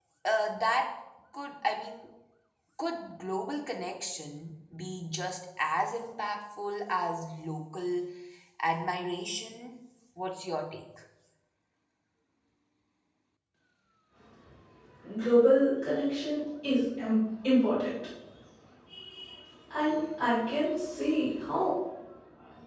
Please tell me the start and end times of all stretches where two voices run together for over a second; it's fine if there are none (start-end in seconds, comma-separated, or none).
none